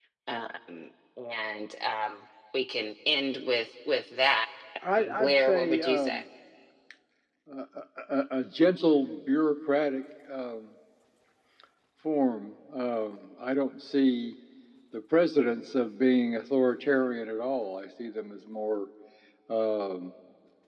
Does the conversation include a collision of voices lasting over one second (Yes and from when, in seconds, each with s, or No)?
Yes, from 5.0 s